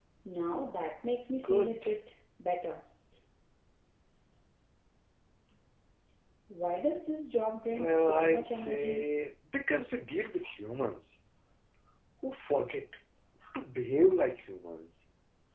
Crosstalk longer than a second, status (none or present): present